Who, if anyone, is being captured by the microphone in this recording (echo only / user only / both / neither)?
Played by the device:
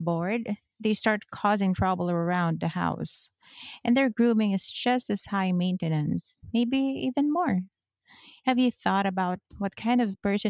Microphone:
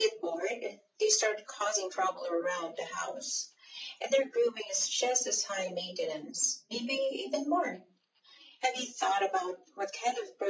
echo only